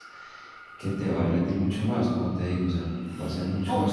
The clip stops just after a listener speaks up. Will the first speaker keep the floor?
No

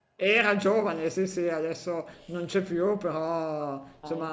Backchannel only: Yes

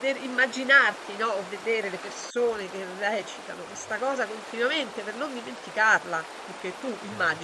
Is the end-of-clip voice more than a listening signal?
No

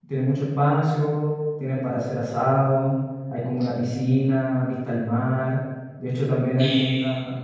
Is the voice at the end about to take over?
Yes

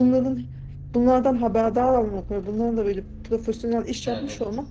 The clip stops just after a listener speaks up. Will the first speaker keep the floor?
Yes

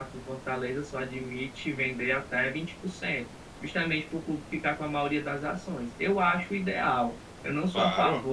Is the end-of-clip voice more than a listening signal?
No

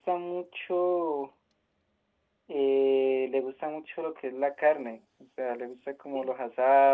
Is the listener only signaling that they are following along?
Yes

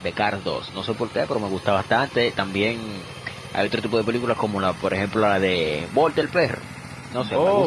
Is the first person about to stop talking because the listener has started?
No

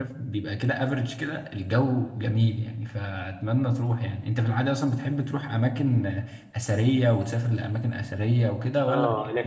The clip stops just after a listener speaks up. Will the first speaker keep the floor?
No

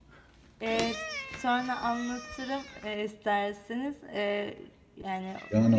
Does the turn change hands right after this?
Yes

